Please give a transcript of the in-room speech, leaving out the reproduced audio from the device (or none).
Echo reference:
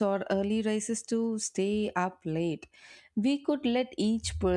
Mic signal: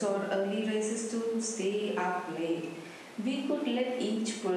none